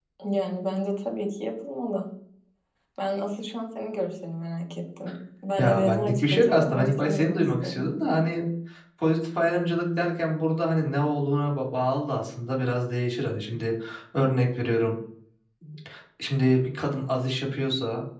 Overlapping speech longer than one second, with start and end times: 5.6-7.9

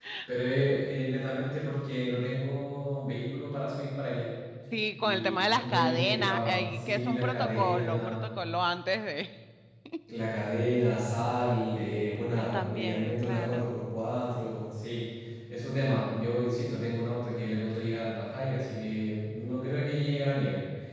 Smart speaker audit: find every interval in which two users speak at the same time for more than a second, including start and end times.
5.0-8.2, 12.4-13.7

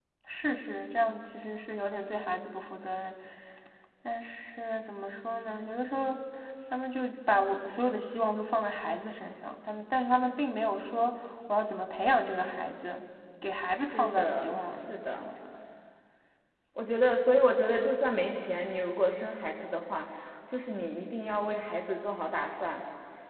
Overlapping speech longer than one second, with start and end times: 13.7-15.3

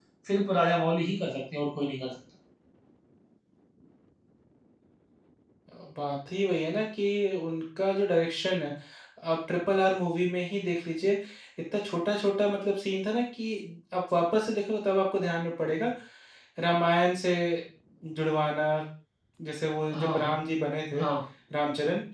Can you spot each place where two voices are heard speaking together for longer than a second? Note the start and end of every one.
none

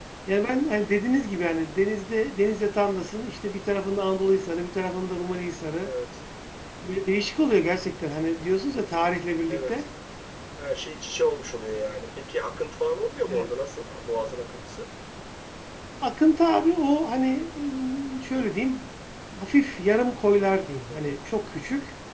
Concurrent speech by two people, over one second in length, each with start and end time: none

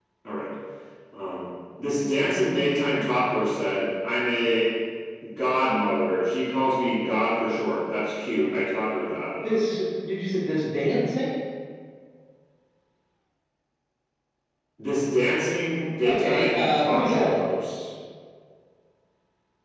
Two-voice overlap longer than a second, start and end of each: 16.1-17.4

